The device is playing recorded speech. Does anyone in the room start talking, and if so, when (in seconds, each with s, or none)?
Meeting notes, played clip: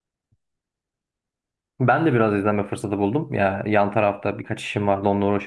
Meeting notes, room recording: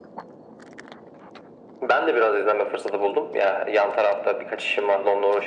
none